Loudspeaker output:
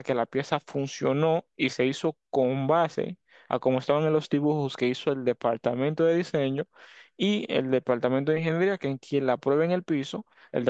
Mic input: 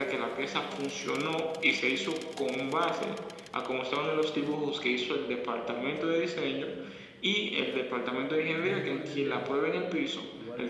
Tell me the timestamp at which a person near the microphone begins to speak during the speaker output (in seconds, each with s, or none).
8.6 s